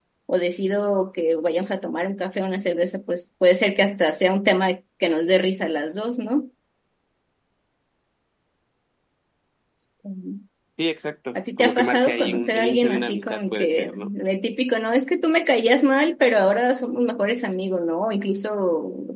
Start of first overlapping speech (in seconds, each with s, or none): 11.4 s